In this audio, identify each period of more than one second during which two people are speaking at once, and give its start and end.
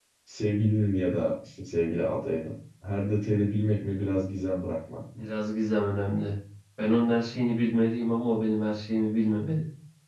none

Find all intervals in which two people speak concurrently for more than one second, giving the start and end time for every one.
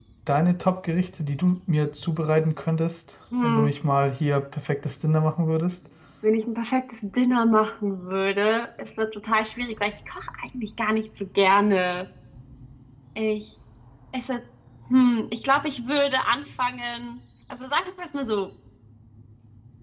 none

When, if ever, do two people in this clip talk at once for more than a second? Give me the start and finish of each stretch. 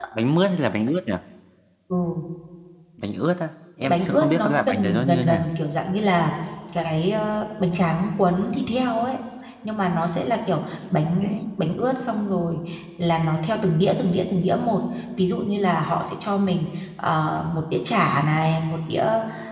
3.8-5.5

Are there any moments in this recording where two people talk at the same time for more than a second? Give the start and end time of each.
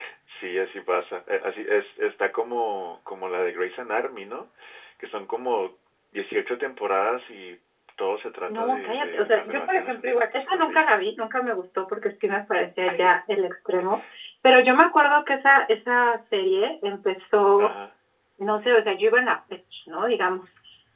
8.5-10.8

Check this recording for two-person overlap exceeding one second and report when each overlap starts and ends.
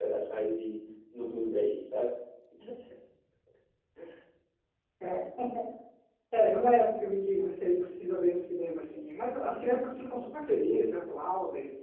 none

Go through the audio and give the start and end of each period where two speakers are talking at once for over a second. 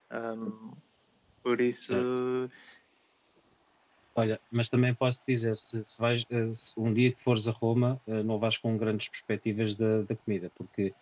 none

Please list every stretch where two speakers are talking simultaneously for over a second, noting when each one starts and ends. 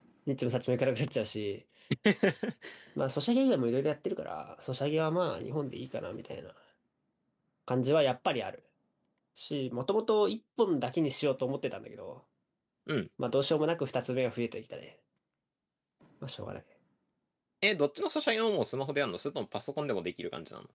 none

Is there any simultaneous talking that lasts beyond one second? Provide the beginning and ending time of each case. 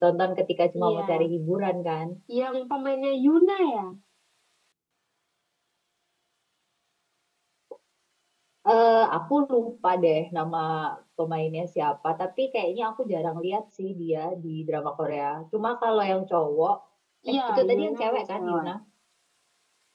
17.3-18.7

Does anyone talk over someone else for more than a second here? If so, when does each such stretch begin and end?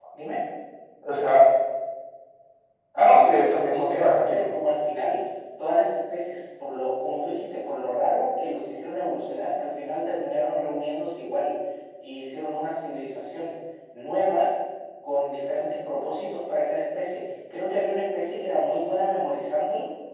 3.0-4.5

